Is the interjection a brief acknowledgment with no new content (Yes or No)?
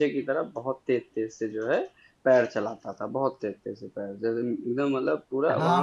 No